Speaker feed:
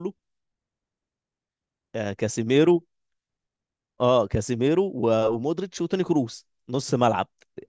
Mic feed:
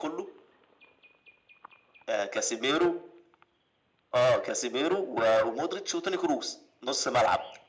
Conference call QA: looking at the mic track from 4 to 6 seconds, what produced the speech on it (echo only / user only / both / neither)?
echo only